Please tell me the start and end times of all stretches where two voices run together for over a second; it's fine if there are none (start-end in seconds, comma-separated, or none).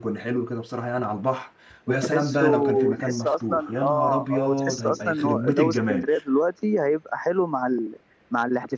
1.9-6.1